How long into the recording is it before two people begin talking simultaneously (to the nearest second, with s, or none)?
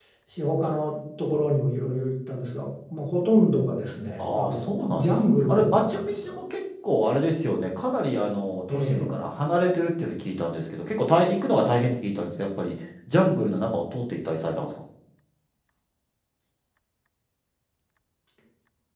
4 s